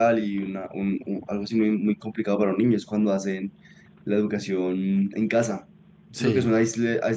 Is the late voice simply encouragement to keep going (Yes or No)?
Yes